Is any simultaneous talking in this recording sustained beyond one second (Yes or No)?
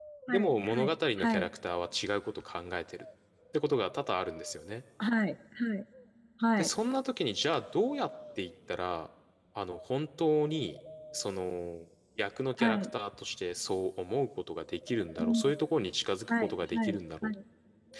Yes